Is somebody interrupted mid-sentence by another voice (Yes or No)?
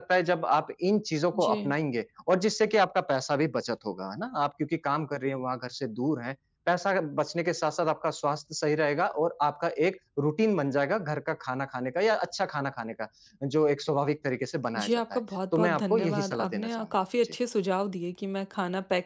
Yes